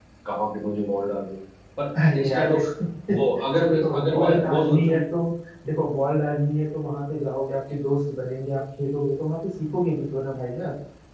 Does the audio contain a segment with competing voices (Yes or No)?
Yes